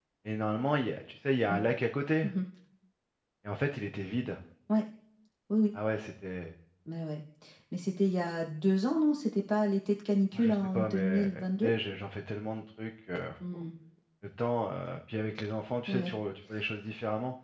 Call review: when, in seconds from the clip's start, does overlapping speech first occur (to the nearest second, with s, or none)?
10 s